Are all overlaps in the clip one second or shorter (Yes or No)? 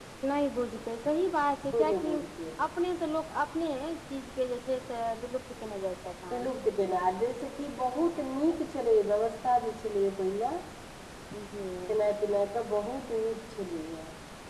Yes